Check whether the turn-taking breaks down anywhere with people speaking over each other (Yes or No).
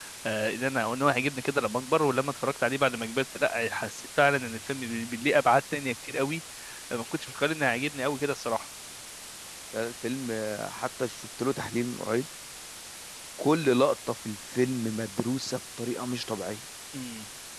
No